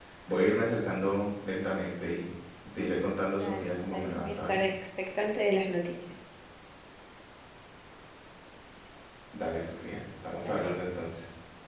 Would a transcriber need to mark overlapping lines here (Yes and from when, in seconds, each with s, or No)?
Yes, from 3.3 s